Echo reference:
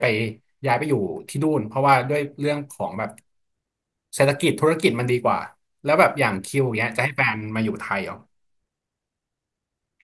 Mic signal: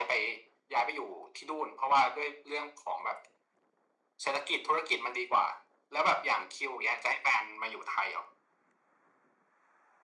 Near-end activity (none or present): none